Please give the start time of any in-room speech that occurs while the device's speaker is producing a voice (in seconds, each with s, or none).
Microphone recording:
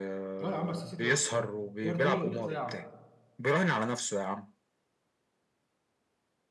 0.4 s